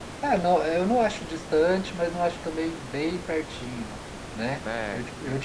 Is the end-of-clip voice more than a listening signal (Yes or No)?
No